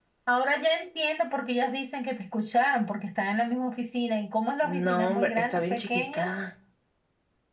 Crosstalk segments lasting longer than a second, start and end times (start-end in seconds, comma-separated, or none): 4.6-6.2